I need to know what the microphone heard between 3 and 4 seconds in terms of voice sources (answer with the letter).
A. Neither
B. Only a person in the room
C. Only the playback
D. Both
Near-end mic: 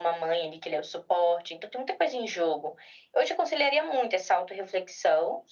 C